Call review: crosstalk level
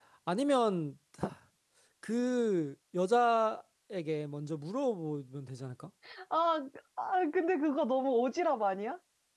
none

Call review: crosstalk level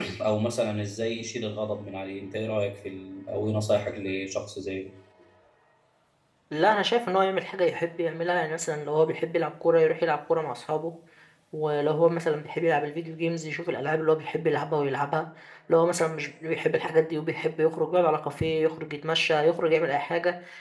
none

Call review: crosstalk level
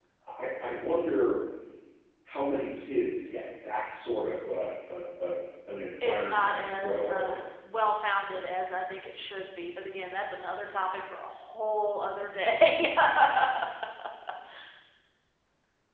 present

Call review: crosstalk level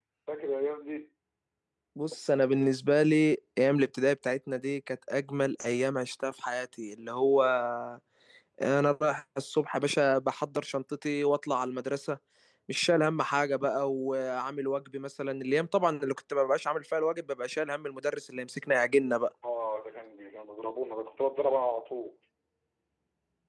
none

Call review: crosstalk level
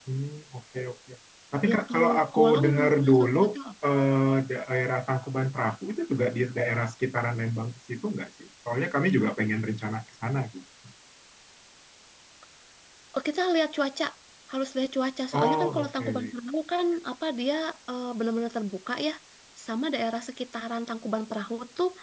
present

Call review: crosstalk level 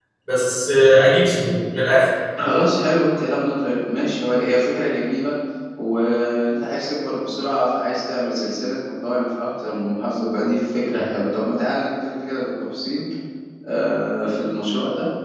none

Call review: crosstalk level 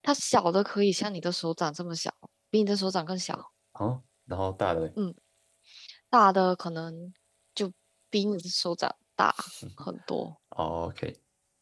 none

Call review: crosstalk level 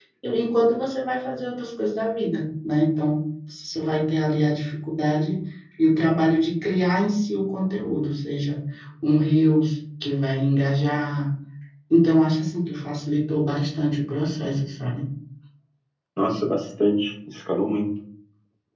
none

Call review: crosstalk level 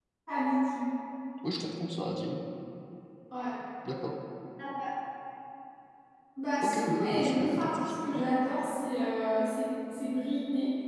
present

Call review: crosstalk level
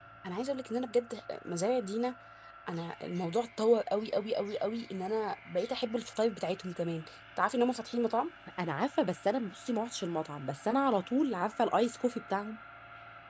none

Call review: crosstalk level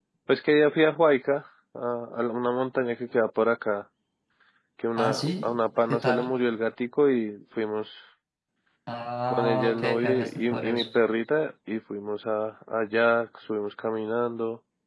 present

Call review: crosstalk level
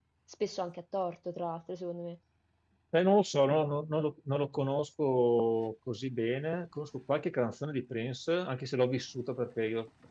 none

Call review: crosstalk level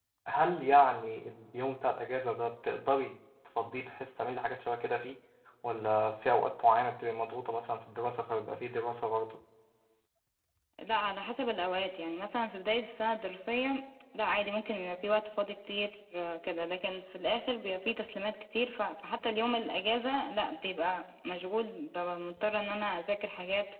none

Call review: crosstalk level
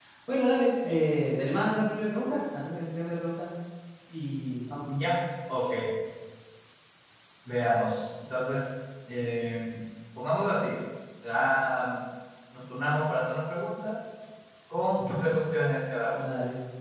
none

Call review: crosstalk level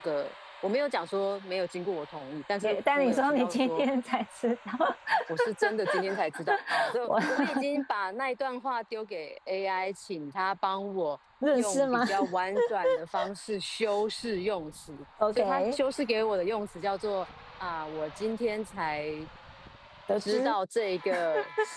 present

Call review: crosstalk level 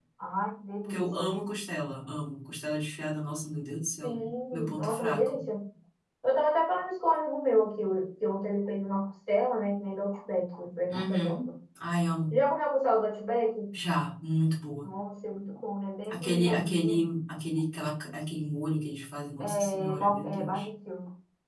present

